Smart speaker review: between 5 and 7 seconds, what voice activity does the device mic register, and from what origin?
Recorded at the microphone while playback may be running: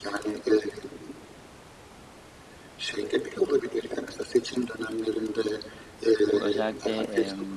both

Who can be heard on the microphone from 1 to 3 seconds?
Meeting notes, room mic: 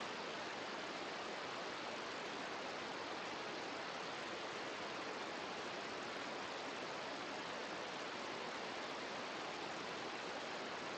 neither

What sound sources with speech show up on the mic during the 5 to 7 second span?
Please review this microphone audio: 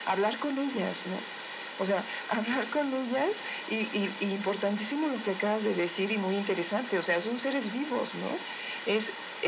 echo only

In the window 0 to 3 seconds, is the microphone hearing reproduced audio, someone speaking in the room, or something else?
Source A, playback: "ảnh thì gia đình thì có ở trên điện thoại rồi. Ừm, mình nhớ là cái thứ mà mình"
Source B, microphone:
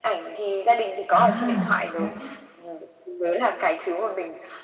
both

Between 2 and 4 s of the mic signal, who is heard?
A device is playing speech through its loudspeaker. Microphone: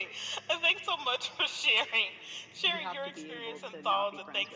both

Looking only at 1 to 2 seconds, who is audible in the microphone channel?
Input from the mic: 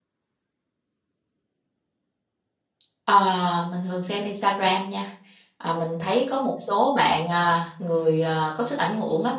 neither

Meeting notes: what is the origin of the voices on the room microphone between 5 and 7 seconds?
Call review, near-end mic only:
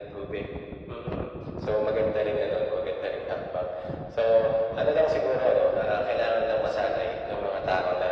echo only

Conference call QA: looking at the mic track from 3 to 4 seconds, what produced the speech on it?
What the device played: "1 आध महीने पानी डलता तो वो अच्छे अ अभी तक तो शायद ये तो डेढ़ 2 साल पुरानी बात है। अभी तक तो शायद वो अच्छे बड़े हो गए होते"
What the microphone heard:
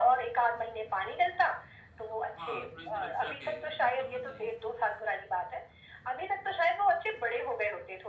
both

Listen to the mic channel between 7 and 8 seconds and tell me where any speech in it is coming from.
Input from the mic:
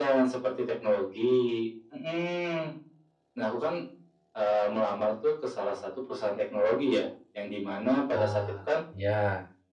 echo only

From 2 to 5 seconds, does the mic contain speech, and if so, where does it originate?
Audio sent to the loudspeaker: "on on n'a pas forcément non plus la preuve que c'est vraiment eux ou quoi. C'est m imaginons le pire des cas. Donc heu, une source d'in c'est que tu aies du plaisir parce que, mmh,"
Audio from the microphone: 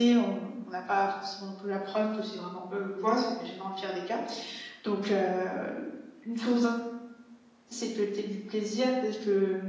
echo only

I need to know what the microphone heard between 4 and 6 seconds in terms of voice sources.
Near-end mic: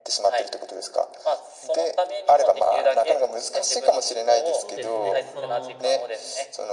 both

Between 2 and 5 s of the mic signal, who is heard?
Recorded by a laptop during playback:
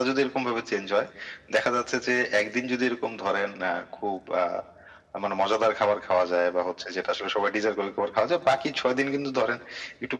echo only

